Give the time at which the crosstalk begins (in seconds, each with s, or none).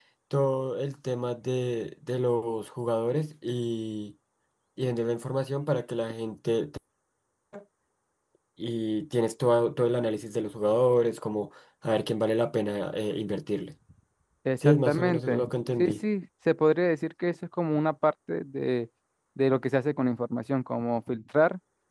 14.6 s